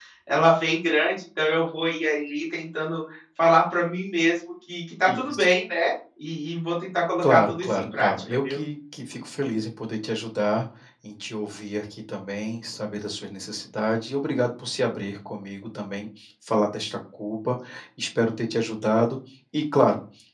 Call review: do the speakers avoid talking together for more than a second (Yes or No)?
No